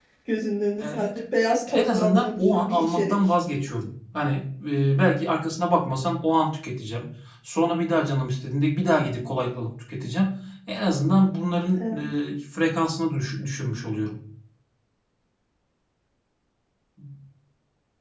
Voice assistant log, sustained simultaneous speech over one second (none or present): present